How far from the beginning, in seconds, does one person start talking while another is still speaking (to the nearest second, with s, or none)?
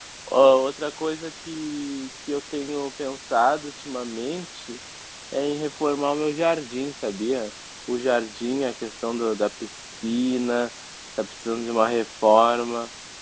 none